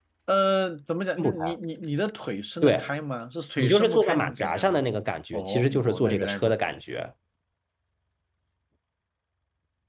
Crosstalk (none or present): present